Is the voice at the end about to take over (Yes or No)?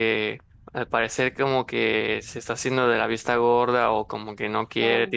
No